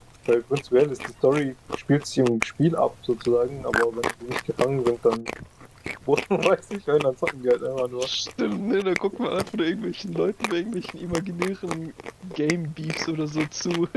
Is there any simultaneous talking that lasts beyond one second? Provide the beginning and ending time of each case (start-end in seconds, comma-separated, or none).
none